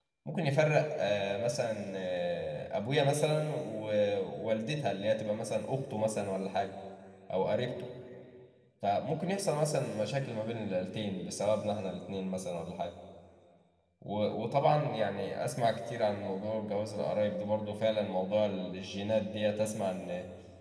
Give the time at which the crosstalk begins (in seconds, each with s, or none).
none